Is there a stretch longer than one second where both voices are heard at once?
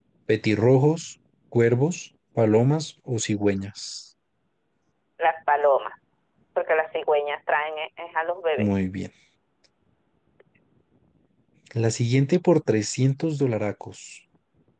No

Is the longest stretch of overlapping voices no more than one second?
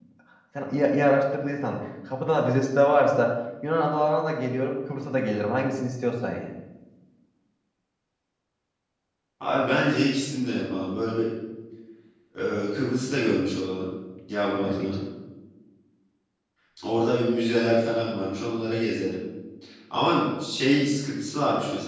Yes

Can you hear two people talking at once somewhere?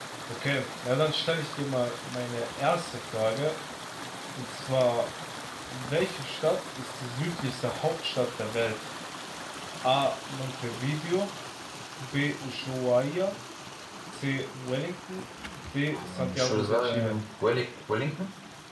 Yes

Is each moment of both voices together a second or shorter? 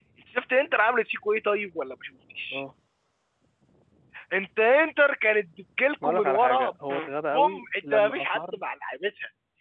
No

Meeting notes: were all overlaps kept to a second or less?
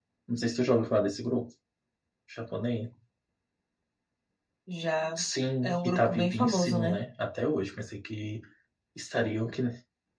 No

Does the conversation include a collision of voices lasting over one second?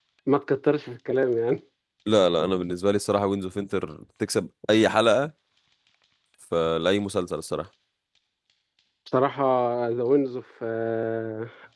No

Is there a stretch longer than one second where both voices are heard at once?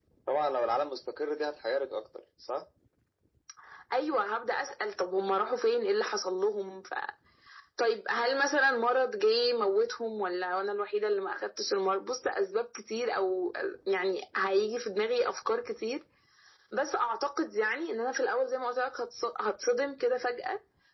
No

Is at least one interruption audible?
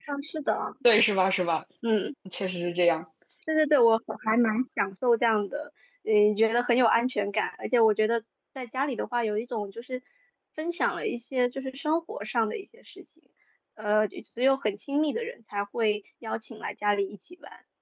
No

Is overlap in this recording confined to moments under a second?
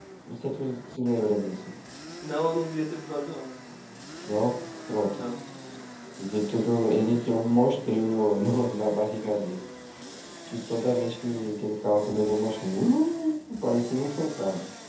Yes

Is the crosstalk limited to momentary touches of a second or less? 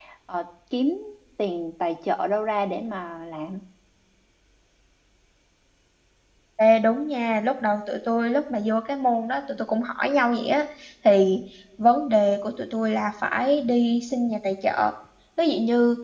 Yes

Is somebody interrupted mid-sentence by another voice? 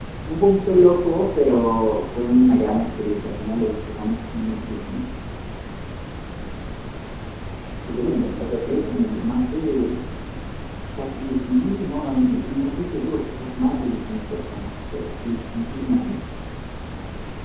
Yes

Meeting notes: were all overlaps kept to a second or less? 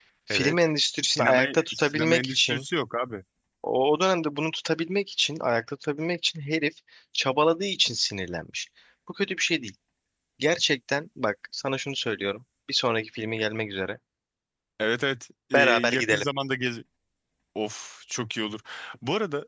No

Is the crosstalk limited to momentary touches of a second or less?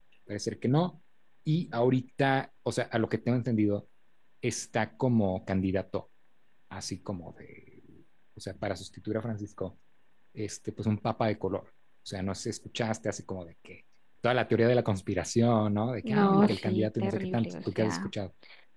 No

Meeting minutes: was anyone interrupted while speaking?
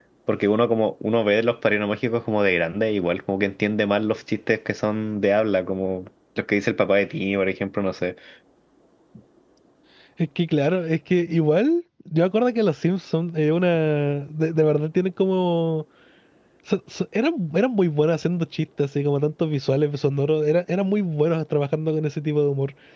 No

